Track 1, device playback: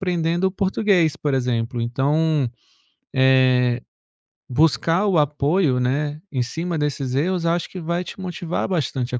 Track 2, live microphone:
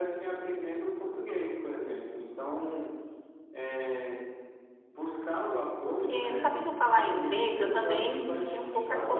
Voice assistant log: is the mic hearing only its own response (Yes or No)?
No